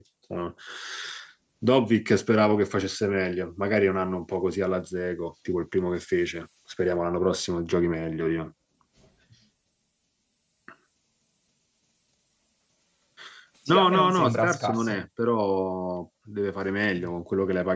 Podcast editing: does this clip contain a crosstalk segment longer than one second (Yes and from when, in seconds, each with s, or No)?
Yes, from 13.7 s